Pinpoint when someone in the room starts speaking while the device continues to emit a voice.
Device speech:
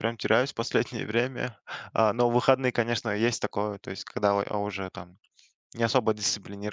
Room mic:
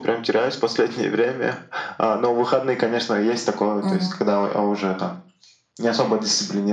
3.8 s

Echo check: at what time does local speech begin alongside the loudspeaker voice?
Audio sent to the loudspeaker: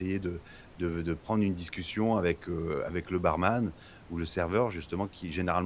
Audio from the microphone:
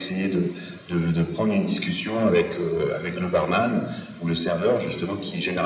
none

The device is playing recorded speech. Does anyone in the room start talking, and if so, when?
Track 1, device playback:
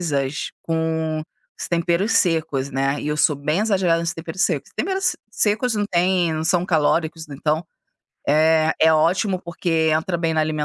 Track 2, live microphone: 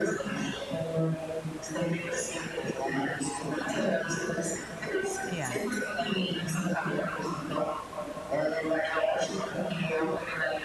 5.2 s

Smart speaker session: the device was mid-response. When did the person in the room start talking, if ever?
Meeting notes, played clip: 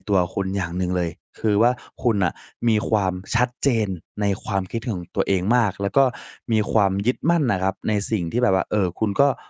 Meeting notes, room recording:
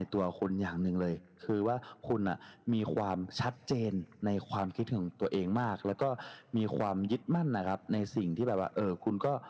none

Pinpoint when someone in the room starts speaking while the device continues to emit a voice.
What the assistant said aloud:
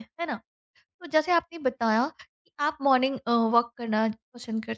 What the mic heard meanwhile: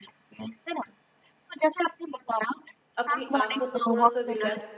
3.0 s

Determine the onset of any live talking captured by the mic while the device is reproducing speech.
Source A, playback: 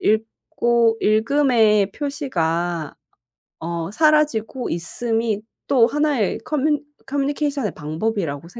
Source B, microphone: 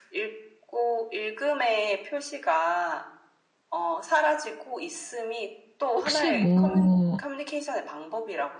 6.0 s

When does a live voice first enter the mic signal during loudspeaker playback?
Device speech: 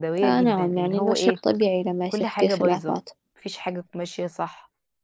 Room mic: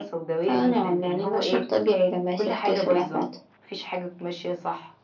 none

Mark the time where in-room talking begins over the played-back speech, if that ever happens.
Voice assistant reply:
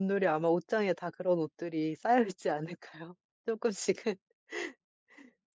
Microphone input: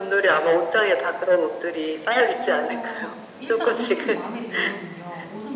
2.3 s

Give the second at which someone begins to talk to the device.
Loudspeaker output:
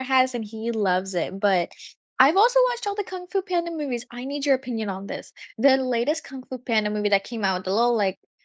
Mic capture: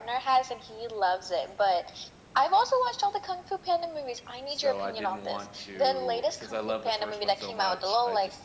4.5 s

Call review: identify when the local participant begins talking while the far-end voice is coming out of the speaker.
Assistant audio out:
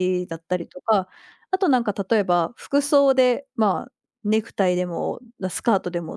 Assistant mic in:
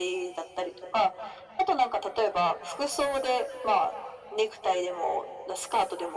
none

